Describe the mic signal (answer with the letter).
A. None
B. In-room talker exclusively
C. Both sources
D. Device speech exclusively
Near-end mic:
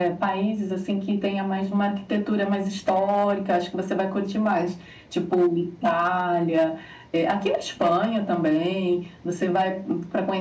D